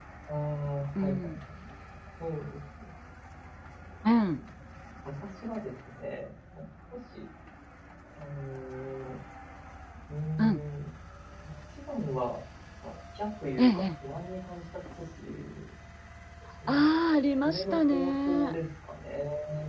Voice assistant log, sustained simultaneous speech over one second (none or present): present